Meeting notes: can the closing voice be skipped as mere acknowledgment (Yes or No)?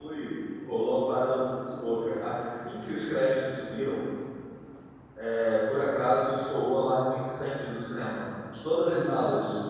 Yes